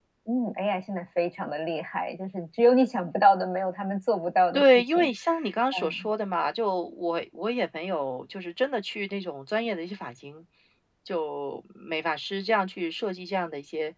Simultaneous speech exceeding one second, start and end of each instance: none

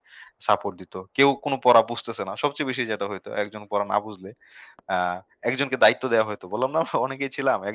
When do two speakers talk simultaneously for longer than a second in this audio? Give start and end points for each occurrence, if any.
none

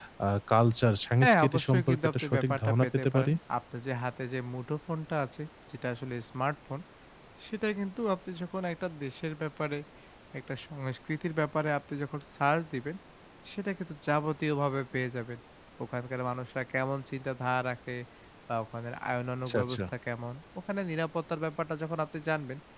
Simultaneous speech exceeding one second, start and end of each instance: 1.2-3.3

